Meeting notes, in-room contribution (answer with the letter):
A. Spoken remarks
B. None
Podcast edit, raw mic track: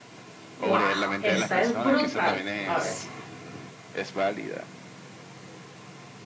A